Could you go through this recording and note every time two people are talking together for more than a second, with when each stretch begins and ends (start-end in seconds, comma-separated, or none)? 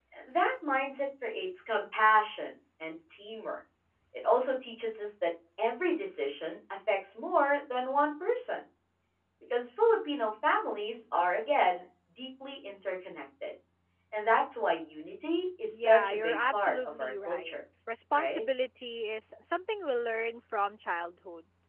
15.7-17.5